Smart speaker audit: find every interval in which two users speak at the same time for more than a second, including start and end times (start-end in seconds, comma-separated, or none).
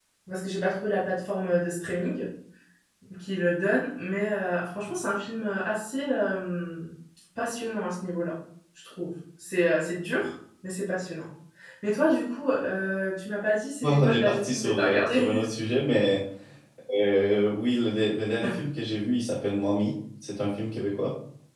13.8-15.3